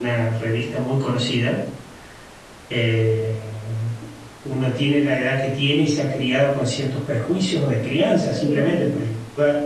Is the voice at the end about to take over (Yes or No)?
No